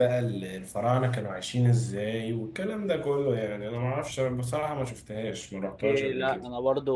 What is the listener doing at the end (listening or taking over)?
taking over